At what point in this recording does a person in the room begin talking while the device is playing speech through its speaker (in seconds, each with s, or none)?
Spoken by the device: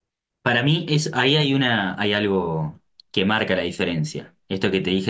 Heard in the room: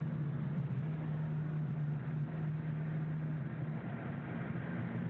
none